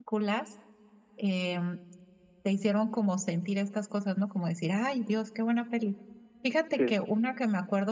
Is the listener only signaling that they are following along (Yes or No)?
Yes